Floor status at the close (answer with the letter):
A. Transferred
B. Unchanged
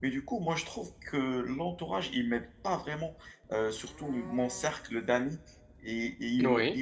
B